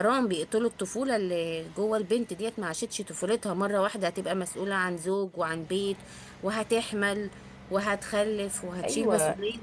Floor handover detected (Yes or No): Yes